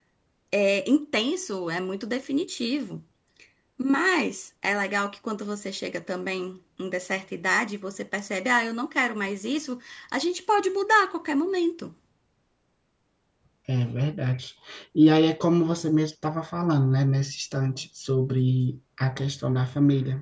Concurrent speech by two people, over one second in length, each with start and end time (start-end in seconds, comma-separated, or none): none